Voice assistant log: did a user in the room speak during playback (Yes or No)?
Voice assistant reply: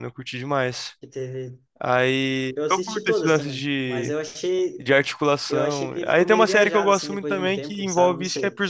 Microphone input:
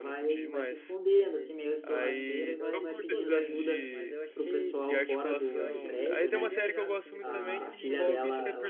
Yes